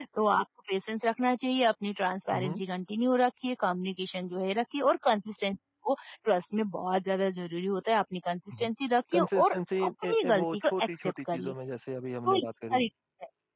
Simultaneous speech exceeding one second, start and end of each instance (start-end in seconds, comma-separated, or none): 9.1-11.5